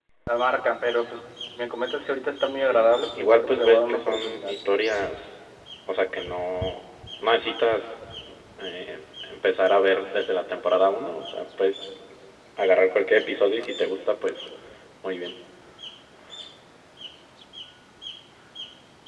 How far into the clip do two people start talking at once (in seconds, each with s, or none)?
2.6 s